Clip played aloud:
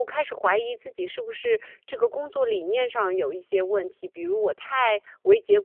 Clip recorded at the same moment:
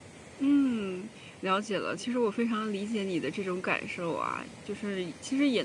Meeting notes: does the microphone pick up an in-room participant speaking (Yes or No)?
Yes